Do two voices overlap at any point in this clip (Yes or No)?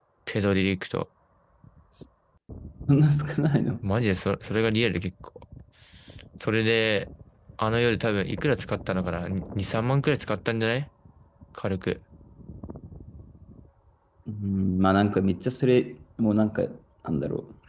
No